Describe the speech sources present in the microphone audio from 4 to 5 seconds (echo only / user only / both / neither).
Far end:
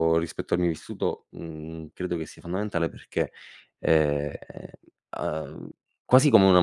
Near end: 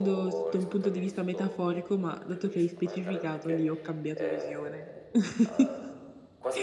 both